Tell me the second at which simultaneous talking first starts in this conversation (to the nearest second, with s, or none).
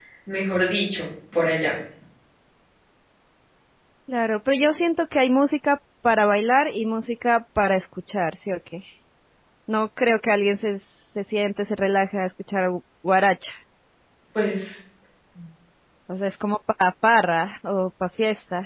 none